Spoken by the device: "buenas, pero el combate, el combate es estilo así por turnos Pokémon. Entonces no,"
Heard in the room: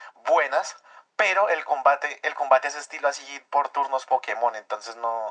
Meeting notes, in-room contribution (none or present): none